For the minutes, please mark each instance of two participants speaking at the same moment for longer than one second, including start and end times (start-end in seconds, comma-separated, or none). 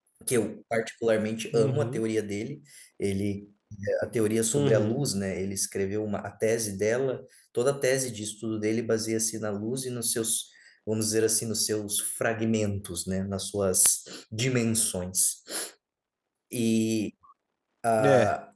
none